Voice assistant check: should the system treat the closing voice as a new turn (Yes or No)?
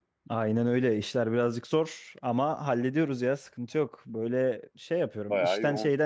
No